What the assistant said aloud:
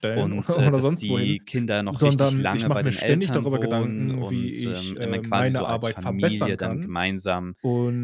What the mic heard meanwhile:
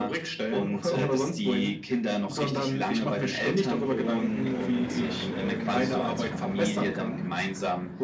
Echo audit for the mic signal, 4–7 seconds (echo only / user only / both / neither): echo only